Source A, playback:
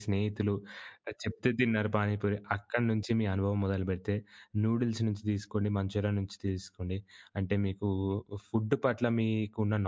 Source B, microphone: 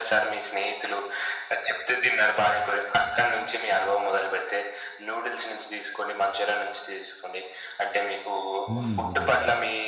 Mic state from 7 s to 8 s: echo only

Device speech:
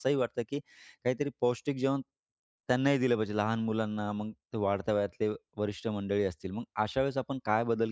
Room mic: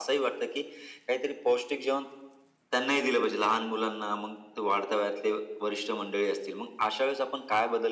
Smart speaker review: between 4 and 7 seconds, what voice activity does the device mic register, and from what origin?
echo only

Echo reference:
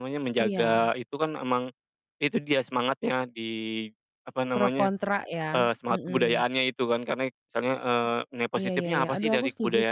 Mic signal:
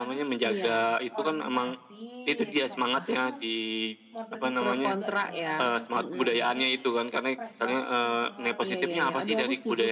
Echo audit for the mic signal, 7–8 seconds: both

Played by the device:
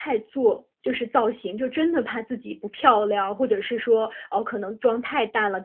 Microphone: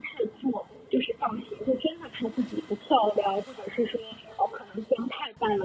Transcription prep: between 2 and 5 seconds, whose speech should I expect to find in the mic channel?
echo only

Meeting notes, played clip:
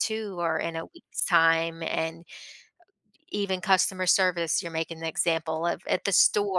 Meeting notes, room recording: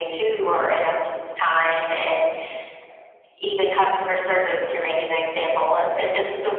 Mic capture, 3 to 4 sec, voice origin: echo only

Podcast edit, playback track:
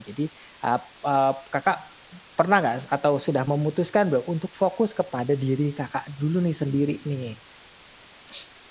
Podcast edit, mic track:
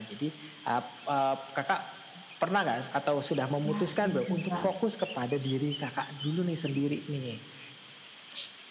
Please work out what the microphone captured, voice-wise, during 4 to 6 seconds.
both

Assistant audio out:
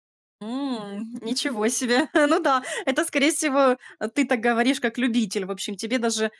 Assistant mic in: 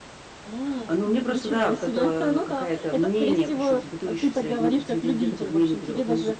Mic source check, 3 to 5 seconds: both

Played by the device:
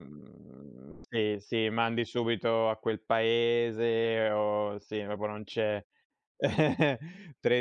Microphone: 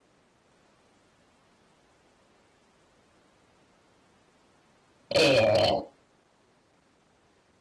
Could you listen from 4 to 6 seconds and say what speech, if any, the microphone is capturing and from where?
user only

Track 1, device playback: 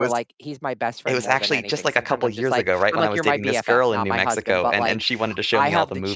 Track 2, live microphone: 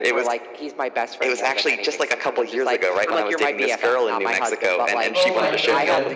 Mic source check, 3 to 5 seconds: echo only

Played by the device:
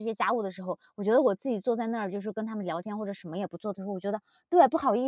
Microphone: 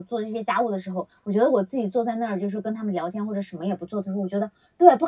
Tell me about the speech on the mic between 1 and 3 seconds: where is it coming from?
echo only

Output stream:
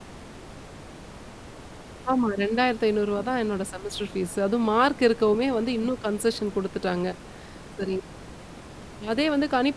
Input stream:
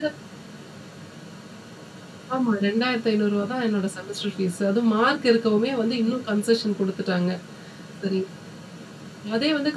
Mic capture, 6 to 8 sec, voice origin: echo only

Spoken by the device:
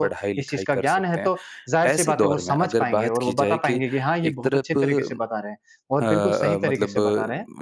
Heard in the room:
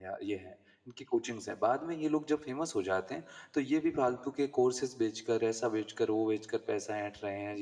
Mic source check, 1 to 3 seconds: user only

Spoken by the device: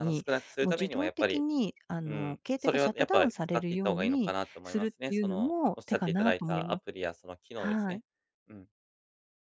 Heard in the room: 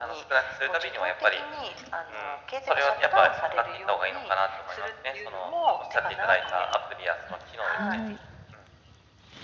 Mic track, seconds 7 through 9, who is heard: both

